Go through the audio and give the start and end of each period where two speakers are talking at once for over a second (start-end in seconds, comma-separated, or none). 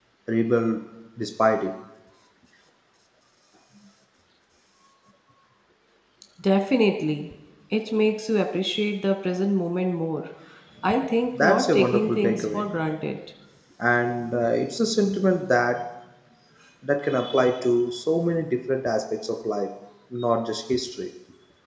11.4-12.7